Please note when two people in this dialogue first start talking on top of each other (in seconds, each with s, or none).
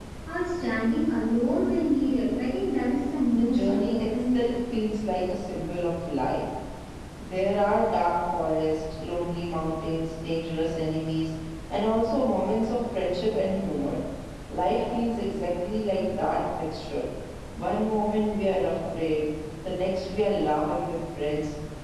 3.3 s